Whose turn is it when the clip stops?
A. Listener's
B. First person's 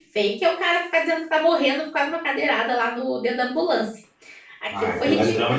A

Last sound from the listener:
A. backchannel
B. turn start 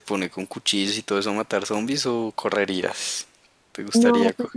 B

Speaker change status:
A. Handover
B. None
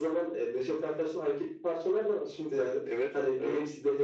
B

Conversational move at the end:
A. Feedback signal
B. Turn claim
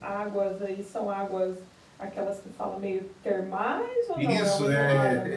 B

